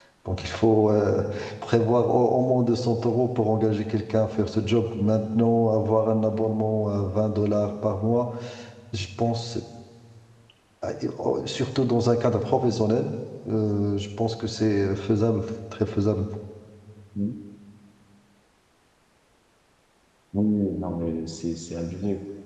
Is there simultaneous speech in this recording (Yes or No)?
No